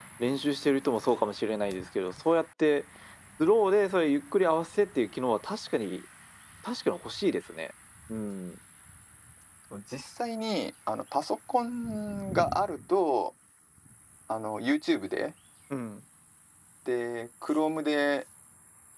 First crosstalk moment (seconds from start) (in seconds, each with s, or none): none